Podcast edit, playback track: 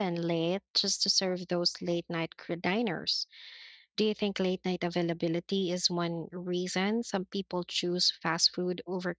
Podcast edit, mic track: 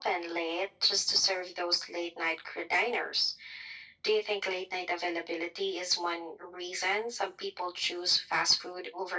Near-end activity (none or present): none